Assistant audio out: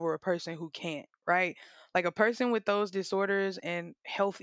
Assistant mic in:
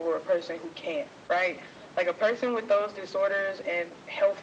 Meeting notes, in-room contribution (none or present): none